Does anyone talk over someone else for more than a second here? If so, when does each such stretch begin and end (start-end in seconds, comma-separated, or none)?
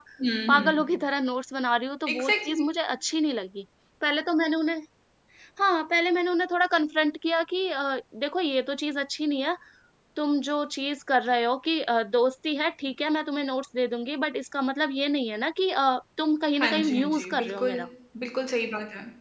16.6-17.8